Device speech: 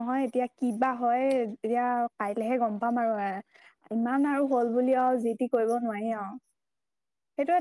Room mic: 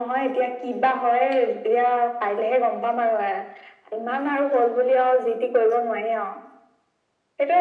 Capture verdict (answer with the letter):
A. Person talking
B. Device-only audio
B